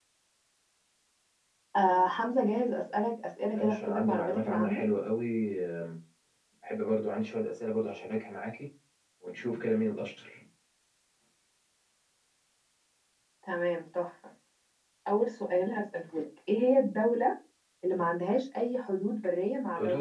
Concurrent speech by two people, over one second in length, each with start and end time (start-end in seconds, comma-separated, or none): 3.5-4.8